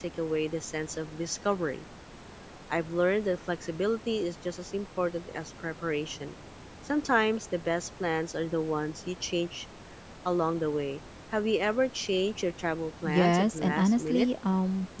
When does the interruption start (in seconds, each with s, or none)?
13.0 s